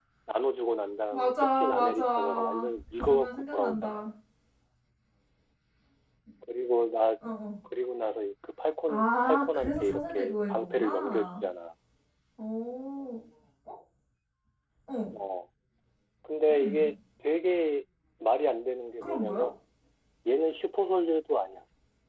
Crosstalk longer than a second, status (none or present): present